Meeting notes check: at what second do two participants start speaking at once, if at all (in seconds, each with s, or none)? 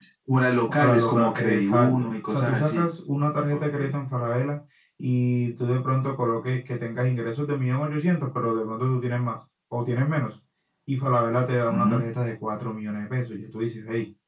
0.7 s